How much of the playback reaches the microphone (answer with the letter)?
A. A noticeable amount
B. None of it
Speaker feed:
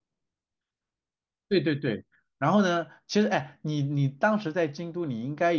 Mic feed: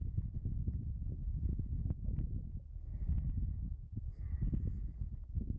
B